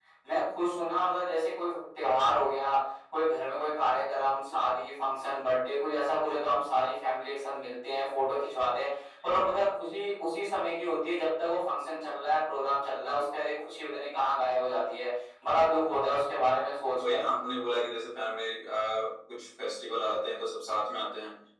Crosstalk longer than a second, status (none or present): none